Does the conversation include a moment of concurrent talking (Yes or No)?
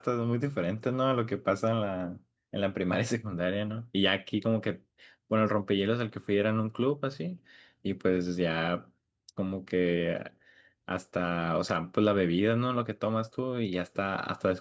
No